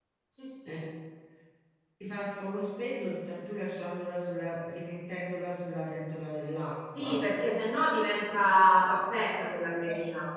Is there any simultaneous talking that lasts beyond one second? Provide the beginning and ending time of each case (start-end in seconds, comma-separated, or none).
none